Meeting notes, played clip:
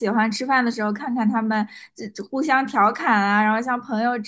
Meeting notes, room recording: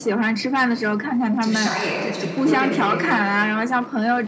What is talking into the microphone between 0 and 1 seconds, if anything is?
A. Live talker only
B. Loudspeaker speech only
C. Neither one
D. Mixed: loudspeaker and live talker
B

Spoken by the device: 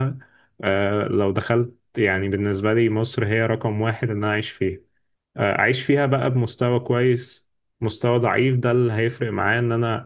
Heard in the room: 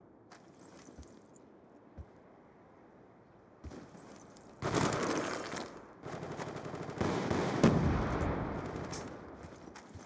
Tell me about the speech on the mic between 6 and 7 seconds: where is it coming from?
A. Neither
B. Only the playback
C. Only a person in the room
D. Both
A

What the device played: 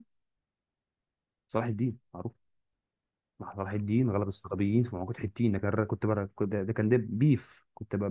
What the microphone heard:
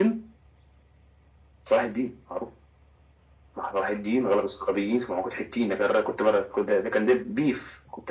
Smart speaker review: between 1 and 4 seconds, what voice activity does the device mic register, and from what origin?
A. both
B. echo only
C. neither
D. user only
B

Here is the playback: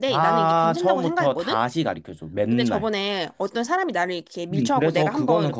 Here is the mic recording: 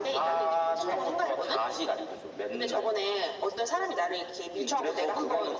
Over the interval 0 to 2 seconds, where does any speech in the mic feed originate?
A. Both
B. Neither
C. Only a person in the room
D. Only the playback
D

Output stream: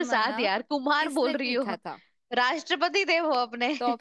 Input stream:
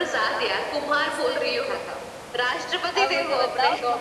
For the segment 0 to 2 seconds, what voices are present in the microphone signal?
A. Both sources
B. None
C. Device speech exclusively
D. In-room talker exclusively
C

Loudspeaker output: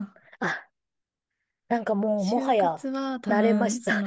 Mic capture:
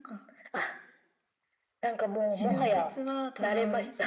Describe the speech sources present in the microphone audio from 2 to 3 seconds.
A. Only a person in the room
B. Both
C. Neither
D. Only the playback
B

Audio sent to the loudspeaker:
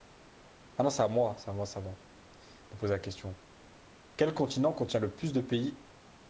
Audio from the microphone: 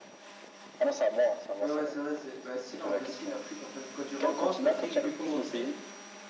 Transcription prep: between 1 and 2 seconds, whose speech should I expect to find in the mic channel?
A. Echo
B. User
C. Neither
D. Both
D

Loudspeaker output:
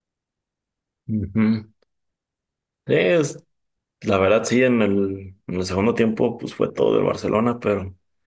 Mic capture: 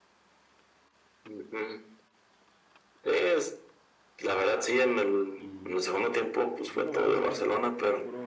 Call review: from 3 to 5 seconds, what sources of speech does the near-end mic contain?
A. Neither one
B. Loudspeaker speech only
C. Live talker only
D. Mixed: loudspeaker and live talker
B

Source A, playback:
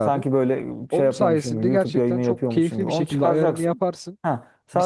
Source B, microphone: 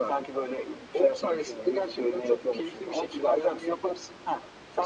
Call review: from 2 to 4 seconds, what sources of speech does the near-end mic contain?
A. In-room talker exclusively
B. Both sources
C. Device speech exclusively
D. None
C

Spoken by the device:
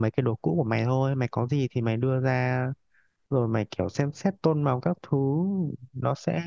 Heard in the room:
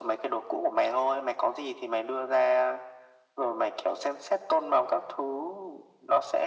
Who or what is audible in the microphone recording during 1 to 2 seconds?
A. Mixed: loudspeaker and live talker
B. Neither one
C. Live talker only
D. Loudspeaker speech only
D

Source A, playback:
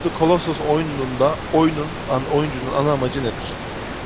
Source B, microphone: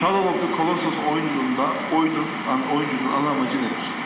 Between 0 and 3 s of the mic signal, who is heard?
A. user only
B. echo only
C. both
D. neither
B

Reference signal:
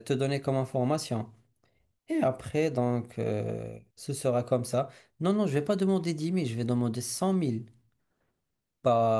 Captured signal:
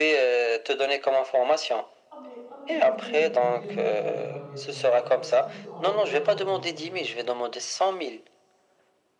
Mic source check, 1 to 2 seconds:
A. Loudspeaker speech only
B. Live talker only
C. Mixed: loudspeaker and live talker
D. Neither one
A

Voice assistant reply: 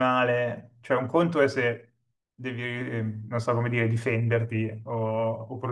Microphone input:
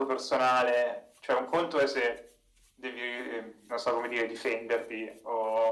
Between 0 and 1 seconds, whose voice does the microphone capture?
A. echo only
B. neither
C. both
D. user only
A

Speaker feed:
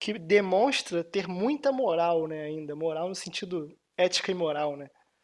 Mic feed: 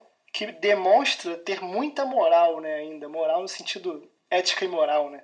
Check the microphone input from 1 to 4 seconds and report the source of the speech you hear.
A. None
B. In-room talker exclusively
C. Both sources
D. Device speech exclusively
D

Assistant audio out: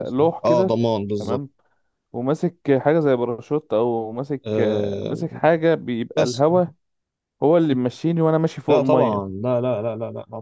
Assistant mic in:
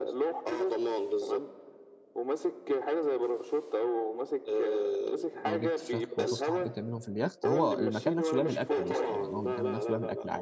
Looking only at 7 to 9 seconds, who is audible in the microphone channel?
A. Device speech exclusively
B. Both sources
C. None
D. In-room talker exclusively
B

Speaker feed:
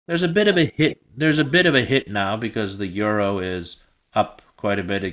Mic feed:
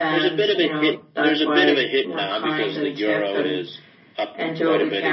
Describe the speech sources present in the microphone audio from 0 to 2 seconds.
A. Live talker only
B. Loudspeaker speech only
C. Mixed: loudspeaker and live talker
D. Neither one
C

